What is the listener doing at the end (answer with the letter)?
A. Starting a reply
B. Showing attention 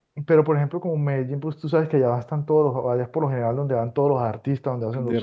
A